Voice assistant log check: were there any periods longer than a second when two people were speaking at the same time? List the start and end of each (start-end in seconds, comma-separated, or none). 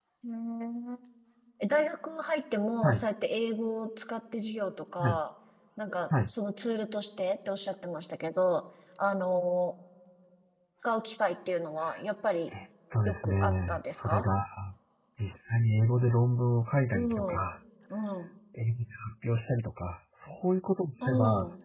13.1-14.3